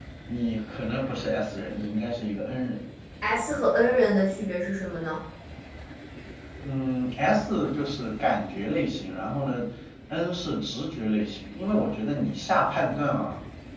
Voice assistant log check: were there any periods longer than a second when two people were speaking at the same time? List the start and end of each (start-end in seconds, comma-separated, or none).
none